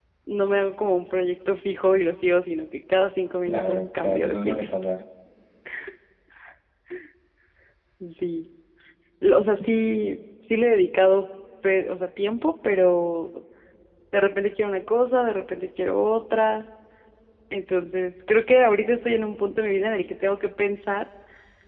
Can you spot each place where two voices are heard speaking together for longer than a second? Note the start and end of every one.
3.5-4.7

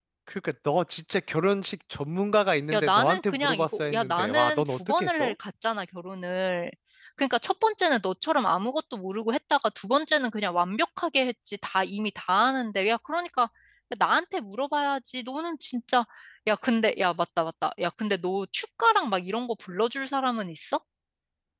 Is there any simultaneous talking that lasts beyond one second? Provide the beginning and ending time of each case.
2.7-5.3

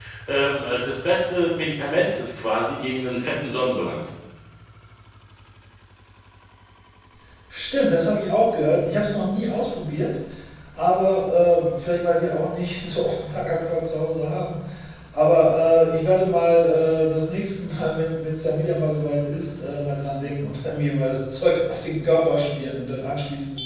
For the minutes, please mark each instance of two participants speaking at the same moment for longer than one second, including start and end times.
none

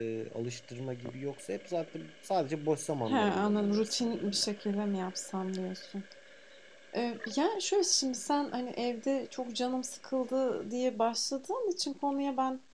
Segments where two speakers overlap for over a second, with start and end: 3.1-4.5

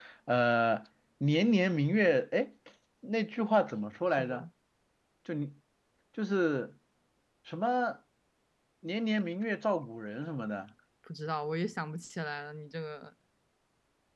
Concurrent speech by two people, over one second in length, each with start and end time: none

